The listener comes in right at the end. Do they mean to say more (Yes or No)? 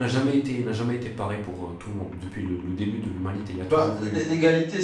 Yes